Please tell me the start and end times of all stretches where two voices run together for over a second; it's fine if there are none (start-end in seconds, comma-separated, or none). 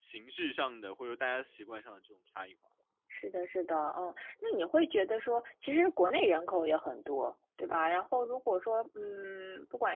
none